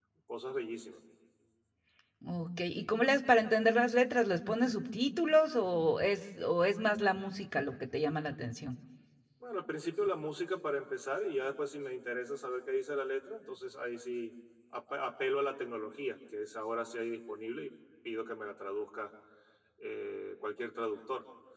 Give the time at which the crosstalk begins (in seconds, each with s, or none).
none